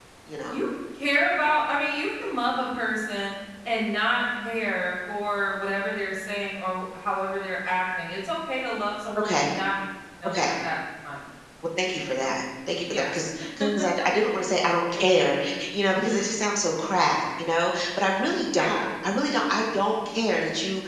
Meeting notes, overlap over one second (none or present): none